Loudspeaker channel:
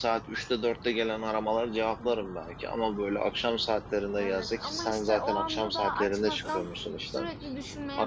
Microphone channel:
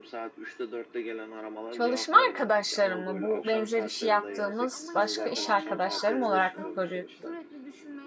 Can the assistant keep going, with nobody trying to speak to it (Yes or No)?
No